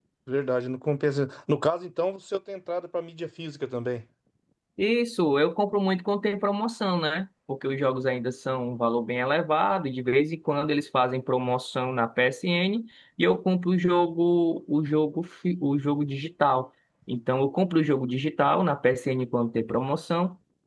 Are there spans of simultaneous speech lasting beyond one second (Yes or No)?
No